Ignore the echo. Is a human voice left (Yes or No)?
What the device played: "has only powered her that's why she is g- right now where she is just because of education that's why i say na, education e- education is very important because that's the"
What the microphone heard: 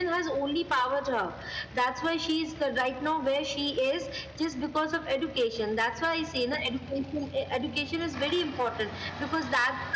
No